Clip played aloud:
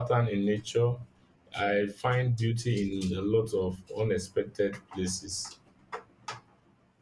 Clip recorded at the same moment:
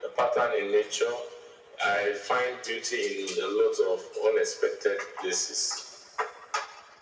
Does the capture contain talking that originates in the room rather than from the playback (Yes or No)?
No